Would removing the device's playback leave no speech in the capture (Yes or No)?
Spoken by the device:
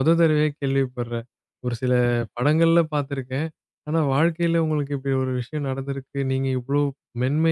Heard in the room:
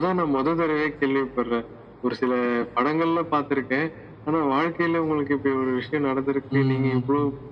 No